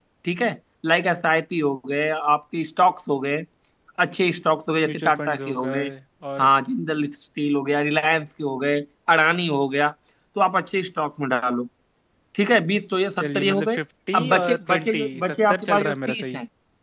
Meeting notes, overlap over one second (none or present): present